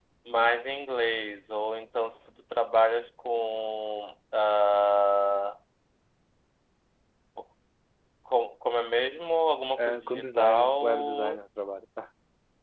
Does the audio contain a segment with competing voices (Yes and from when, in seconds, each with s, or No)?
Yes, from 9.8 s